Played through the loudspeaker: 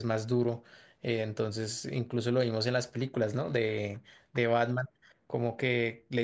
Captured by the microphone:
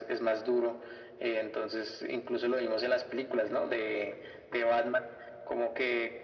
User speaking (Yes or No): No